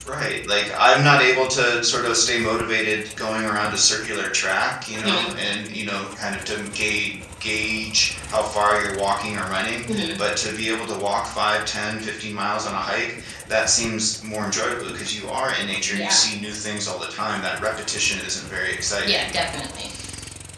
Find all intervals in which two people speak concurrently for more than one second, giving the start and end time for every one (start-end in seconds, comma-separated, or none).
none